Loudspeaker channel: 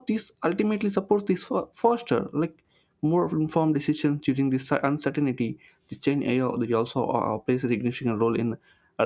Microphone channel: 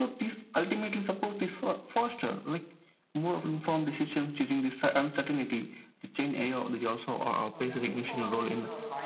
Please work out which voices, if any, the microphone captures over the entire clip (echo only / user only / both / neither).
both